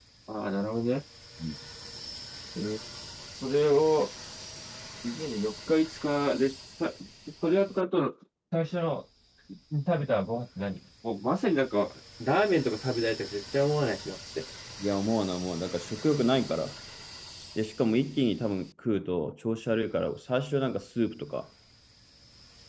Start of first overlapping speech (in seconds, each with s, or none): none